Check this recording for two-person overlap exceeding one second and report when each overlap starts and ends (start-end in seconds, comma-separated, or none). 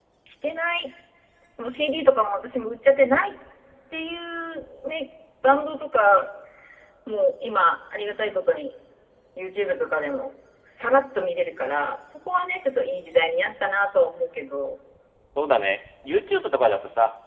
none